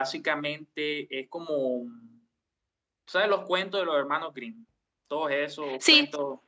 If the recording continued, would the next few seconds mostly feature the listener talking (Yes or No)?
No